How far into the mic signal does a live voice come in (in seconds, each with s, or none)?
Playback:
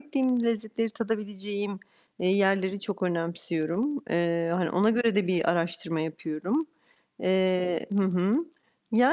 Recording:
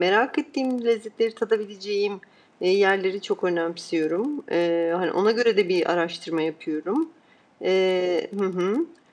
none